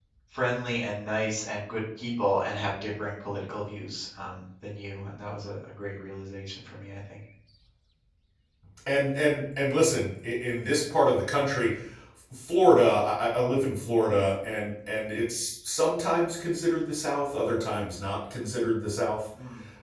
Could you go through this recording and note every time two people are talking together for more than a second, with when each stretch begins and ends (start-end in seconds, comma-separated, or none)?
none